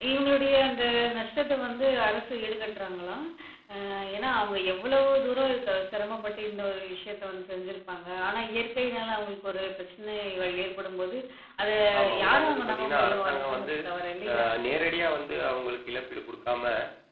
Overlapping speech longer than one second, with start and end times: 12.2-13.7

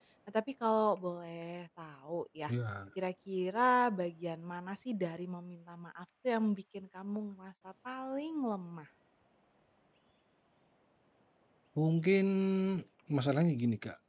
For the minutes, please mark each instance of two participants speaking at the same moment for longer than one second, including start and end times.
none

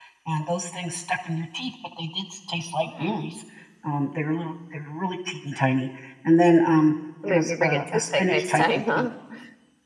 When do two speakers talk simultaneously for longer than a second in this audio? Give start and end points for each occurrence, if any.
7.3-9.1

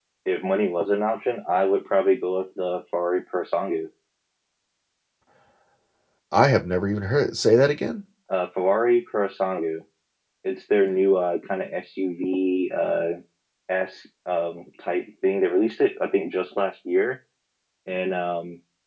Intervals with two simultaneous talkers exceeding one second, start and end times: none

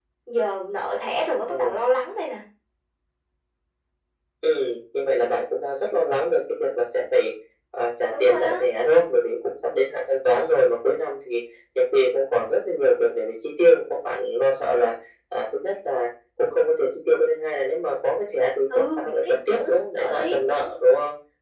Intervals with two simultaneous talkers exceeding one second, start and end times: 18.8-20.7

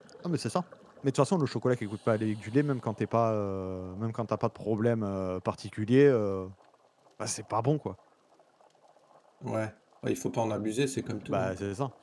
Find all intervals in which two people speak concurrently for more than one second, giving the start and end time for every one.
none

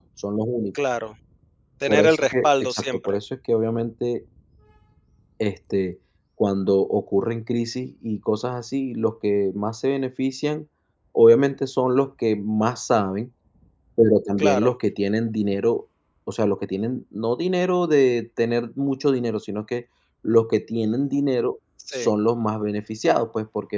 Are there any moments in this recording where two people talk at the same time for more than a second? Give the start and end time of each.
1.9-3.2

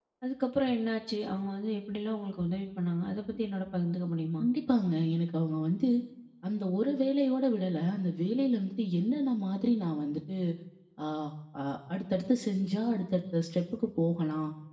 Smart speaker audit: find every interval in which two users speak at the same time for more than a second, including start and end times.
none

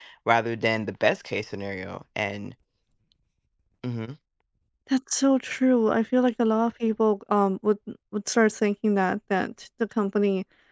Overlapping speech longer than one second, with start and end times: none

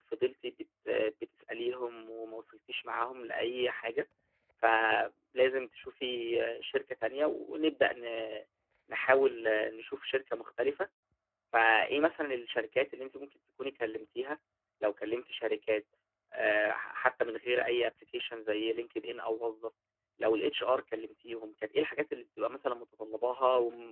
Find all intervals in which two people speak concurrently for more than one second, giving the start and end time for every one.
none

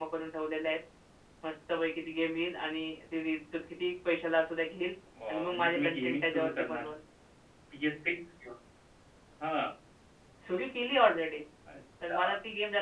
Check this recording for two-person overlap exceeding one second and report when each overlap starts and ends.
5.3-6.9

